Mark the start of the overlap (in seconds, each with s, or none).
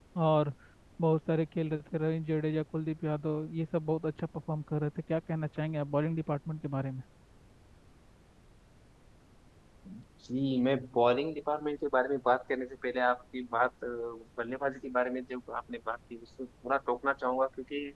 none